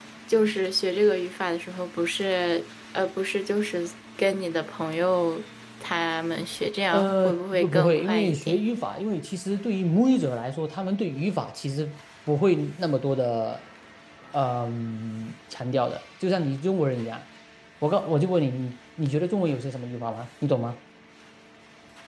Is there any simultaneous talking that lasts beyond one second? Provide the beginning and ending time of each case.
6.9-8.6

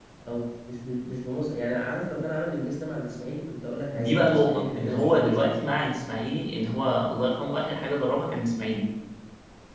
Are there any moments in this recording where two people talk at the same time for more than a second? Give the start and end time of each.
3.9-5.6

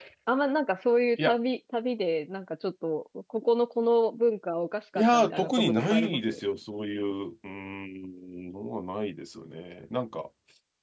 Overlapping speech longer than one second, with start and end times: 5.0-6.4

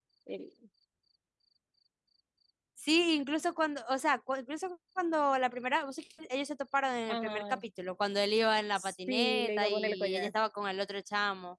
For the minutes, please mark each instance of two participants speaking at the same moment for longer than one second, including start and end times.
8.8-10.3

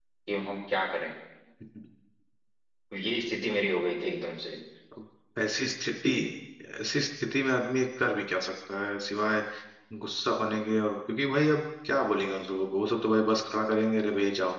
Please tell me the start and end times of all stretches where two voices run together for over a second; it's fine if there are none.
none

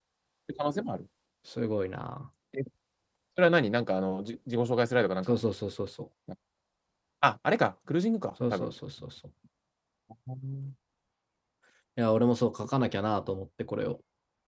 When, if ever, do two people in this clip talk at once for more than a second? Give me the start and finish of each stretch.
none

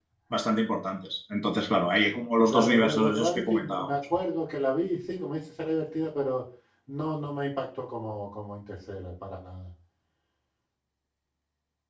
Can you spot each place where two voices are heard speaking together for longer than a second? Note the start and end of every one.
2.5-3.9

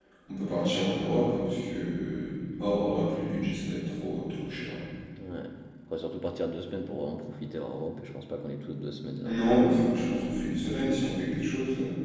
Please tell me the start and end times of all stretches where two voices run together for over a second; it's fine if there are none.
none

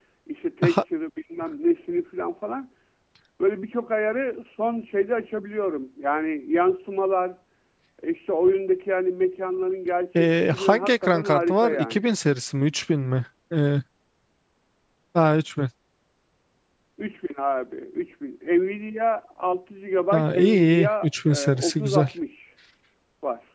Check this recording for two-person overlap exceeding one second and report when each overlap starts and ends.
10.2-12.0, 20.1-22.1

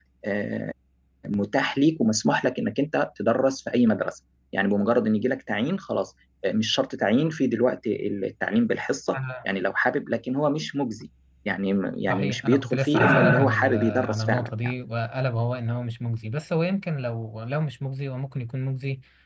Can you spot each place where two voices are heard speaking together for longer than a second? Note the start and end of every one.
12.1-14.5

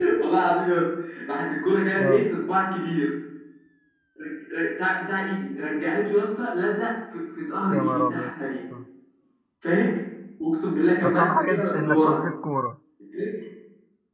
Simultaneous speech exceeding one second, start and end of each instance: 11.0-12.2

